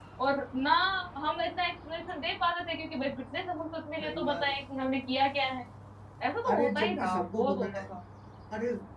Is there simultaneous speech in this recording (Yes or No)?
Yes